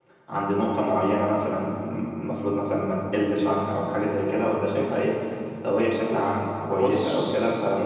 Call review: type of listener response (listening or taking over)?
listening